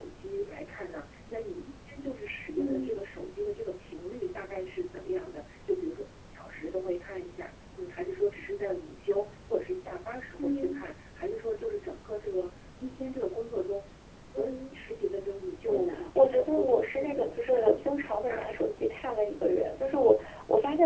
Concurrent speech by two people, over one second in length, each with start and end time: 15.7-18.6

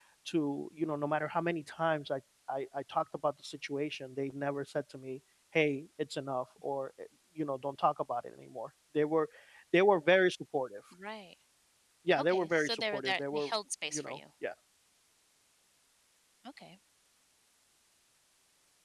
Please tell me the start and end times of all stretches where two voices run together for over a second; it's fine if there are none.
12.2-13.5

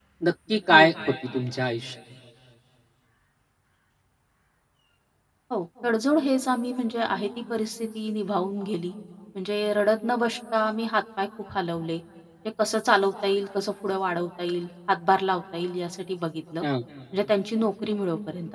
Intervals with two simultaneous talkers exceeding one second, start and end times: none

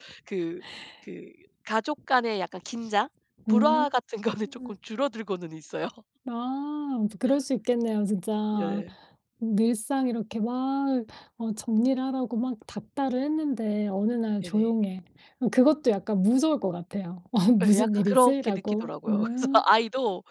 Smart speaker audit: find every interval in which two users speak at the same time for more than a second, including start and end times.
17.6-19.6

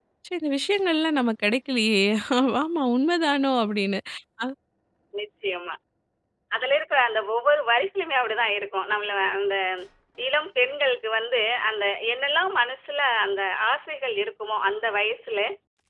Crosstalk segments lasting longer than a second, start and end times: none

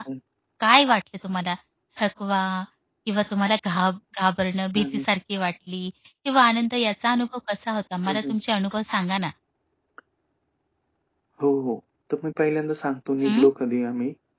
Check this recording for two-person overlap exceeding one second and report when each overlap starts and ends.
none

